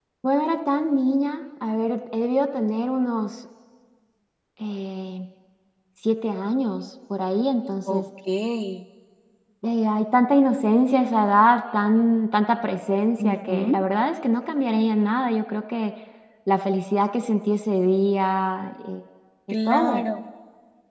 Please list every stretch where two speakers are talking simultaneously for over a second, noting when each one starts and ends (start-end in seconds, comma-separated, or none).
none